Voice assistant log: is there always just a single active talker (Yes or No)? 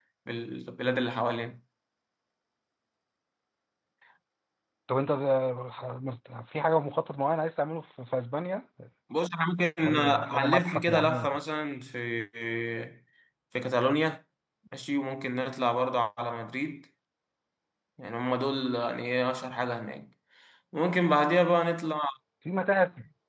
No